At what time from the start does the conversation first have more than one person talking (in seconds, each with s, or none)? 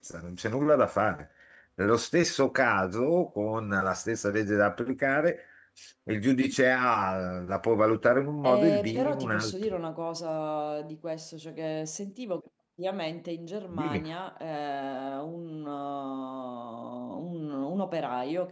8.4 s